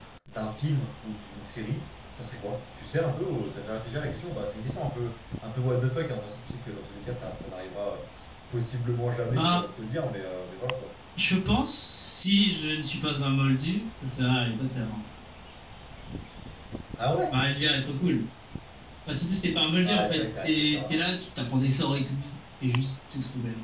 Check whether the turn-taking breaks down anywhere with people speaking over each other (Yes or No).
Yes